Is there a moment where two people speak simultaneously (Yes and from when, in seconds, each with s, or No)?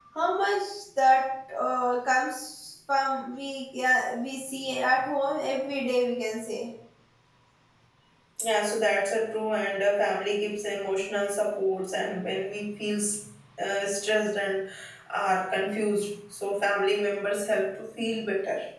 No